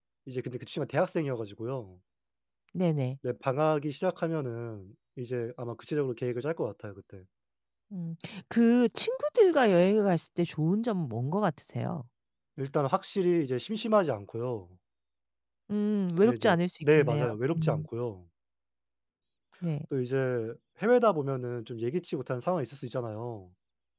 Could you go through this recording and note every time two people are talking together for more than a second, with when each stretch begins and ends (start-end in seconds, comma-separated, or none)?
16.2-17.8